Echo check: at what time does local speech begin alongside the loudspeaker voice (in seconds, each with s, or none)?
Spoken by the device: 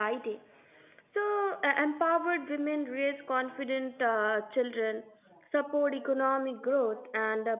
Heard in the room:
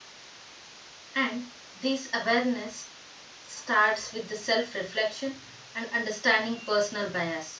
1.2 s